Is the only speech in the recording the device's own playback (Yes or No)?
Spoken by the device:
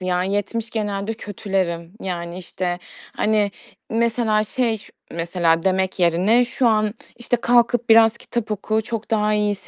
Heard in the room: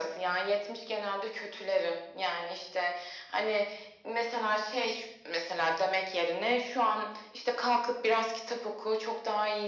Yes